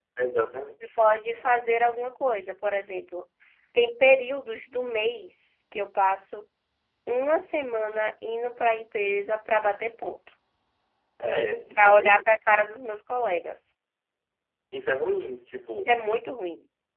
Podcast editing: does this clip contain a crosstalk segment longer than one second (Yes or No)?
No